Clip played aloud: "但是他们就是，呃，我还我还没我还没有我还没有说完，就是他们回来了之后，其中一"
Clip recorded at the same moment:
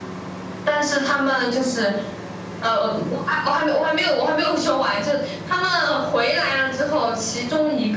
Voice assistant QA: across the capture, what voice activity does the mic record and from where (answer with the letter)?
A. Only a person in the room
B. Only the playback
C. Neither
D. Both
B